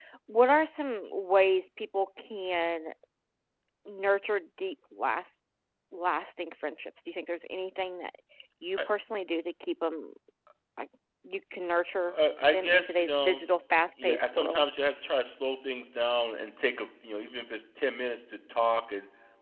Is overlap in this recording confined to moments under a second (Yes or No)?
No